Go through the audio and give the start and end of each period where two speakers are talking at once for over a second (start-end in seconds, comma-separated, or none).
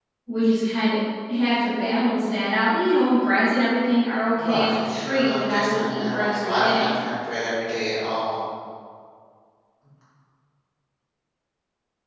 4.4-7.0